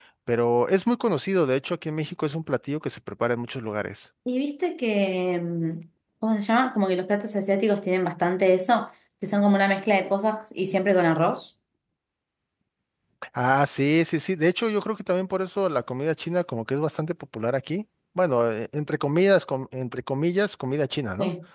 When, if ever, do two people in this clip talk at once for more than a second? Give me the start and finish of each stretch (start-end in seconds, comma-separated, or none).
none